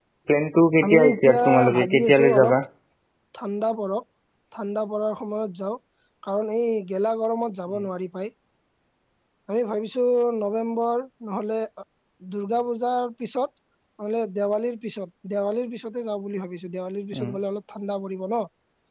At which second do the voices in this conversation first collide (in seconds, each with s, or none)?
0.8 s